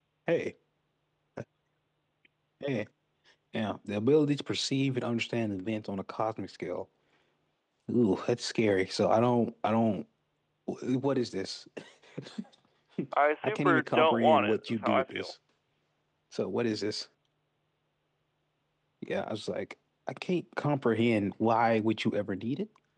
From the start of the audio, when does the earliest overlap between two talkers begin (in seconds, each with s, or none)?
13.4 s